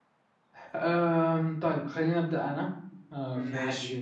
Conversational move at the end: listening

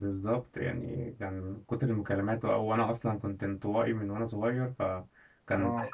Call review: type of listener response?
listening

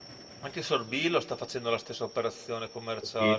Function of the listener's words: taking over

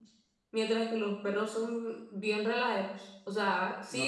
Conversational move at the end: taking over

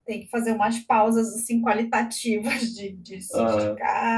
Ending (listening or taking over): listening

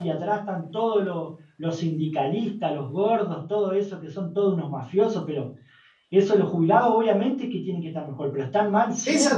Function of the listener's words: taking over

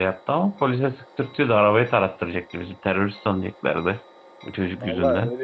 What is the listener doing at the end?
taking over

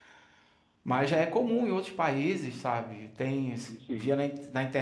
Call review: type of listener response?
listening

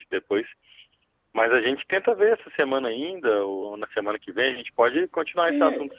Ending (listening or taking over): taking over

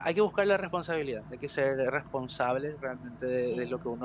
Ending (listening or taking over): taking over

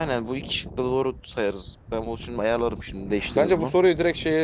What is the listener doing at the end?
taking over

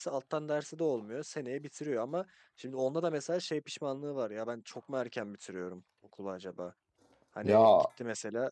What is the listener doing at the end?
listening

